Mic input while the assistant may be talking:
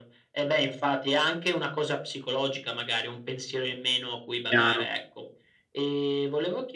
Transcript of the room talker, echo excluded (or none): Chiaro.